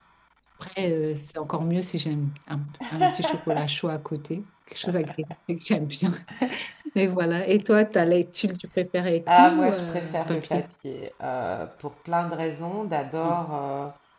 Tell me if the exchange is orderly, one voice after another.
No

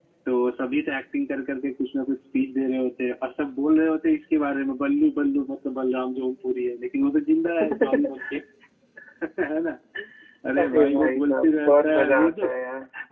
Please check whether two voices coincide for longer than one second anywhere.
Yes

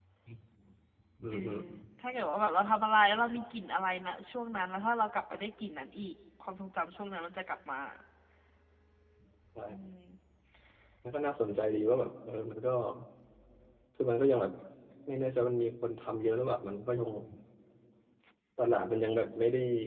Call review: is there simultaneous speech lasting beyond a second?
No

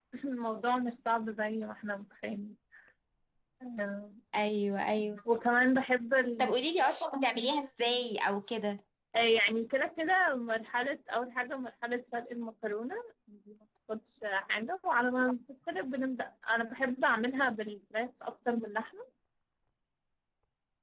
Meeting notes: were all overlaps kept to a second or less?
Yes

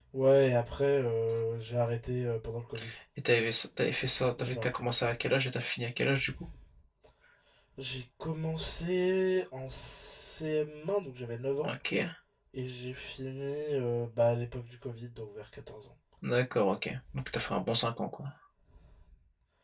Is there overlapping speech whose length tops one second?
No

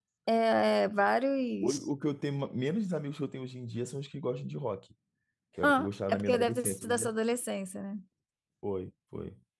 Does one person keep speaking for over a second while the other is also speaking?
Yes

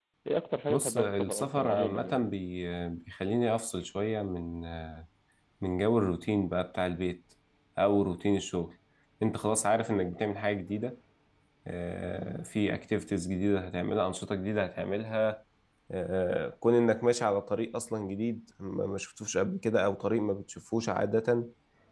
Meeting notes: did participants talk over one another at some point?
Yes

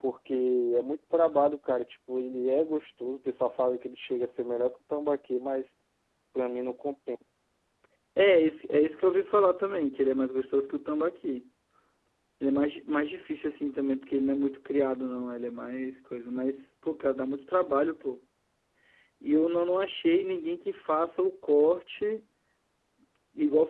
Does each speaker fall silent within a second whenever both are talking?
Yes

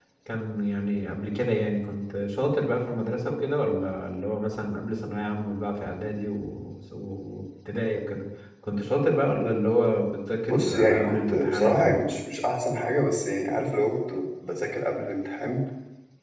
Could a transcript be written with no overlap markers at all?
No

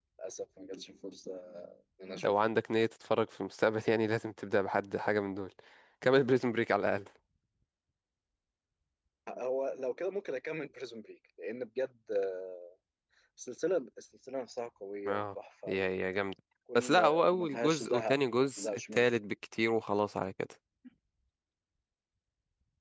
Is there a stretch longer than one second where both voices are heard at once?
Yes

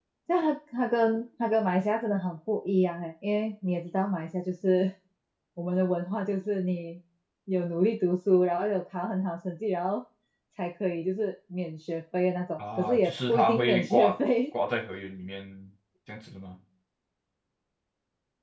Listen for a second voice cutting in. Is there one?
Yes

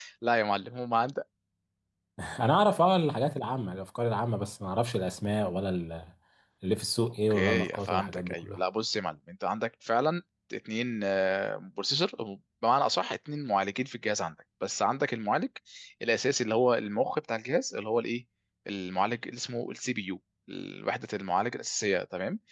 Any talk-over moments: Yes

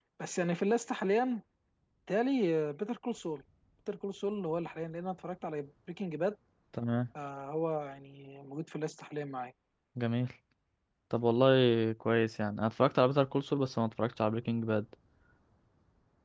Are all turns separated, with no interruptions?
Yes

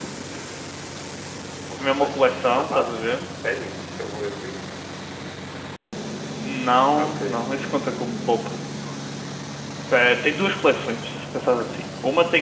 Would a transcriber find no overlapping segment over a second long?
No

